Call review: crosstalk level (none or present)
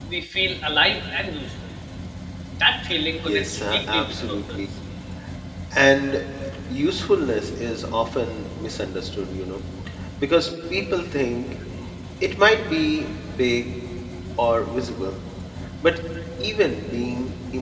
present